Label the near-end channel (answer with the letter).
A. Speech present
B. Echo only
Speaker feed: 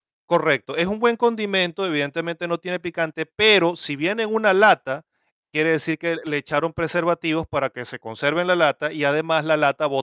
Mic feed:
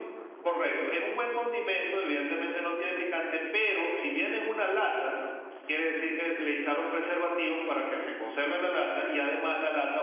B